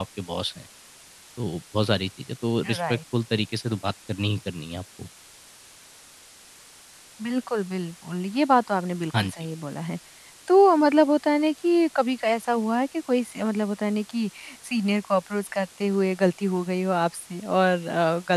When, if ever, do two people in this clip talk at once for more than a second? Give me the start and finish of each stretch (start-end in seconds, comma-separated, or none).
none